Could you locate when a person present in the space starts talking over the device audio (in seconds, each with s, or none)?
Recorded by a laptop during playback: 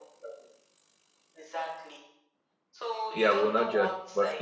3.1 s